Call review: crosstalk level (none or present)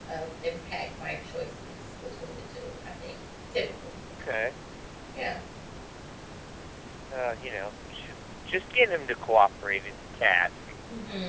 none